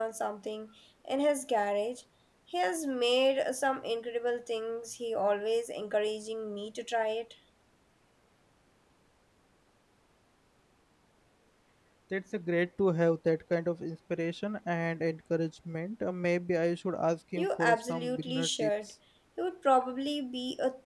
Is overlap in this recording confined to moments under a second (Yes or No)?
No